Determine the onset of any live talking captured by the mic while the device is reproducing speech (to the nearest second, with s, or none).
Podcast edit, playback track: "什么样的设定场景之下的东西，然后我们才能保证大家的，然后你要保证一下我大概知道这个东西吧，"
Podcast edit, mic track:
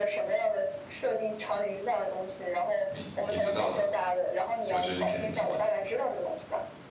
3 s